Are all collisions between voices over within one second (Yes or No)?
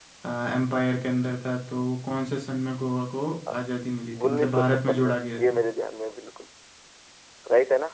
No